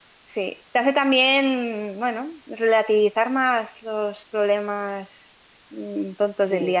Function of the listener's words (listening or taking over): listening